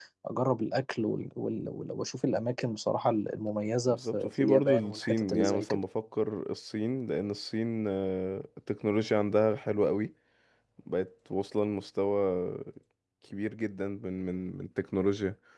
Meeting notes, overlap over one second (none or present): present